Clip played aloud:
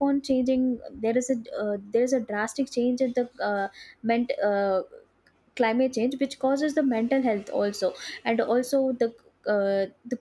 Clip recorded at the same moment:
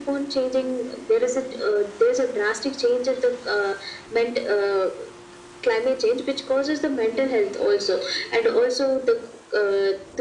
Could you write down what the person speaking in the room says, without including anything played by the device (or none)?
none